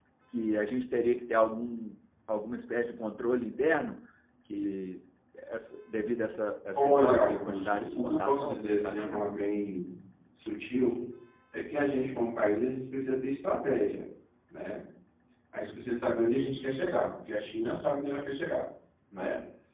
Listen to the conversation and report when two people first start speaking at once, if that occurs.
6.8 s

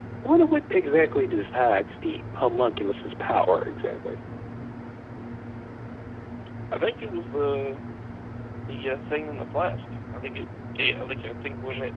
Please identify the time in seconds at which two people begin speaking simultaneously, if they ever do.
none

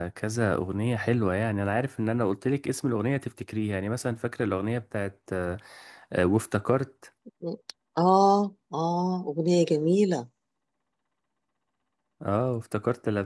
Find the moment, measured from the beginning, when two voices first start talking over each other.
none

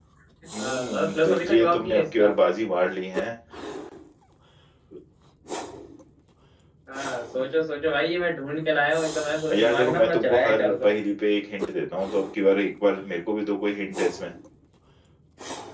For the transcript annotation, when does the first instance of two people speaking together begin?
0.9 s

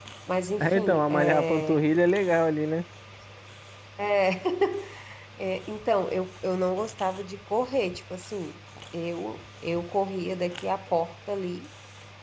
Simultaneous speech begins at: 0.6 s

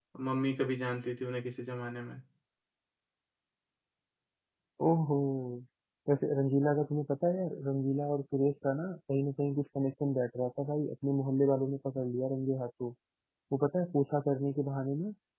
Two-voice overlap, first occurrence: none

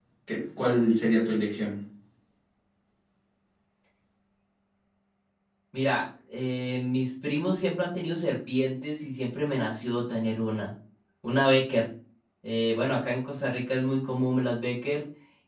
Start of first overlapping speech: none

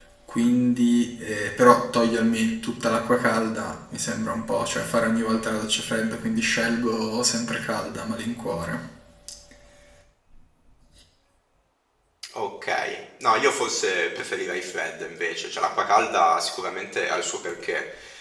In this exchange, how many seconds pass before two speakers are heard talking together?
none

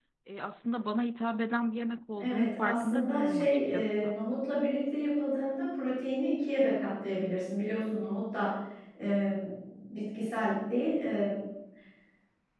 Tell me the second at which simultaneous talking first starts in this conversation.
2.2 s

